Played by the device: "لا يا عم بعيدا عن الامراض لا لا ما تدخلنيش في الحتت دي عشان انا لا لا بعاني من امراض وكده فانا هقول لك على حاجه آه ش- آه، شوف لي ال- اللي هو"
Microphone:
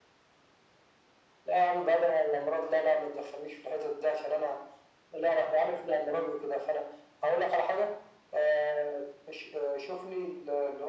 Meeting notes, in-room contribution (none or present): none